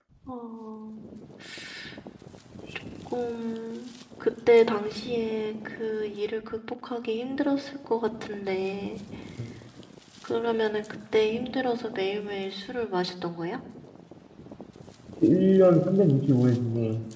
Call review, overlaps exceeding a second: none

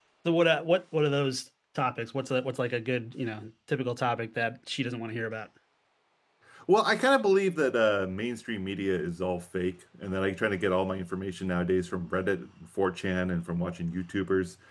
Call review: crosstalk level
none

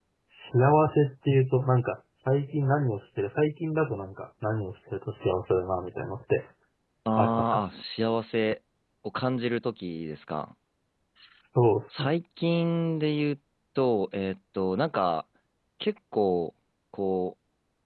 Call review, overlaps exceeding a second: none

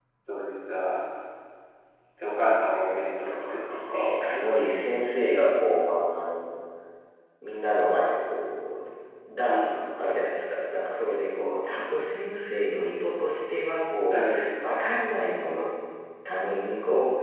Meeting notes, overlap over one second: present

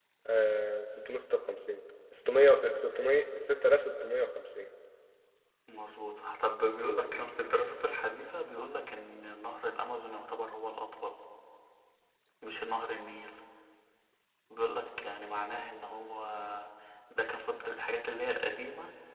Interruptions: none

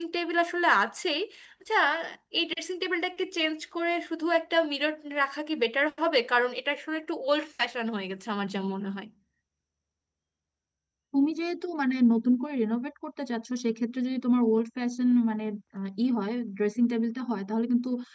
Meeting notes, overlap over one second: none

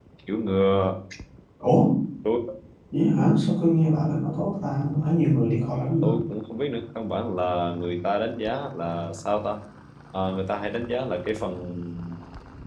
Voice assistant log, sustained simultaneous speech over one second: none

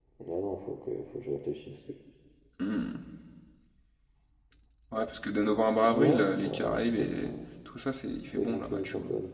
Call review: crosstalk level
present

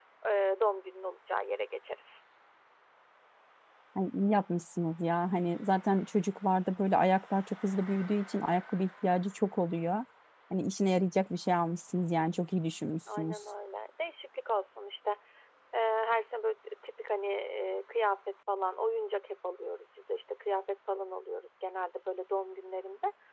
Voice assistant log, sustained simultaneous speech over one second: none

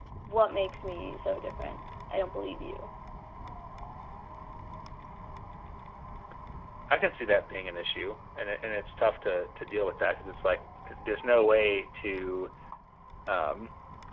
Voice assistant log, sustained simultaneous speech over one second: none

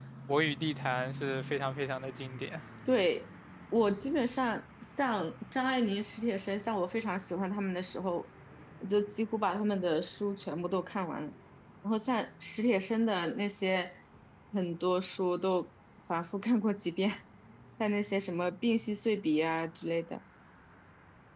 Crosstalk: none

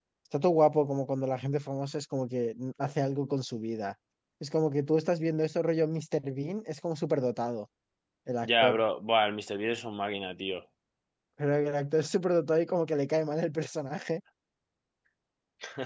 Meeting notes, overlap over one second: none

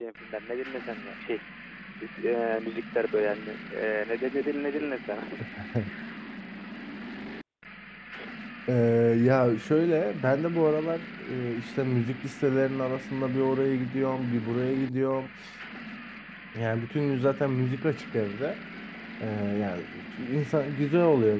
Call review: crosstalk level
none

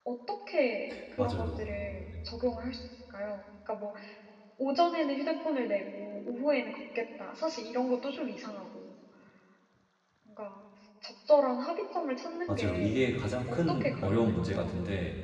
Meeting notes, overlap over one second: present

